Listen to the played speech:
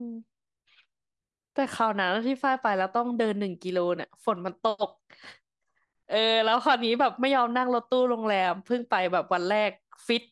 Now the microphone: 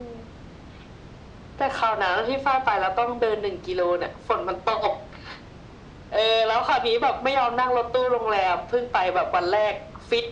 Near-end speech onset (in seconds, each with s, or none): none